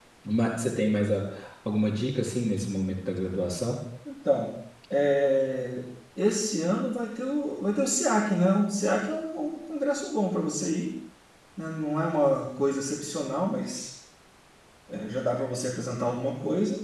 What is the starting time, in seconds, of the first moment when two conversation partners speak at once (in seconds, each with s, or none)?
none